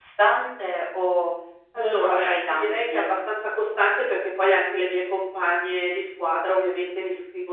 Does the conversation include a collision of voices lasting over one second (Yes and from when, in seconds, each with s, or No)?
Yes, from 1.8 s